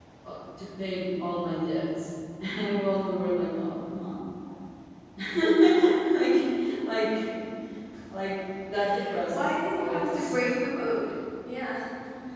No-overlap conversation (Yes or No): No